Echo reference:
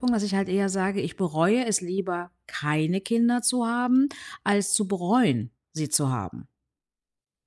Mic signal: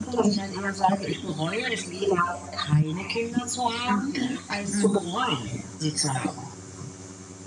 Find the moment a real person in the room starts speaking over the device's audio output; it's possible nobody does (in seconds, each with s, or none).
3.9 s